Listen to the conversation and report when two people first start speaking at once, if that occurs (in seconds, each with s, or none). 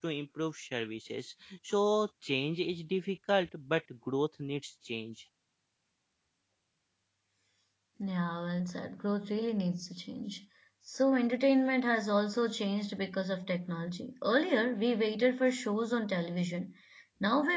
none